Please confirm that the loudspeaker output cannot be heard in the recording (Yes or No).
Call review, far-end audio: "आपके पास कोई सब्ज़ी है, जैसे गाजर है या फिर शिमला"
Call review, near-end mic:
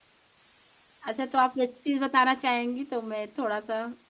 Yes